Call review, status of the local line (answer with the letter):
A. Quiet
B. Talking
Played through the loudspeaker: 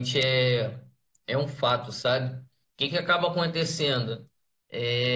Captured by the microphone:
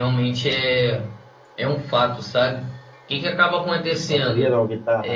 B